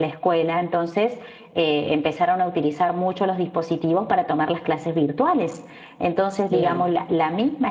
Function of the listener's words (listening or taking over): listening